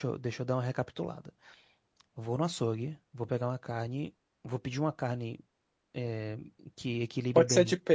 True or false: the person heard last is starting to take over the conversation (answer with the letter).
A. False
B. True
B